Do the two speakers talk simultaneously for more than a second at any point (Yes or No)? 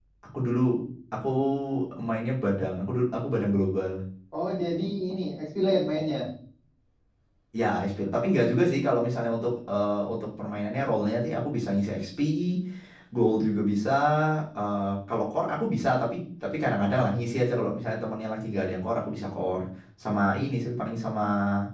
No